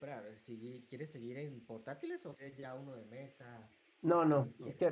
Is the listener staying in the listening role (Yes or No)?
No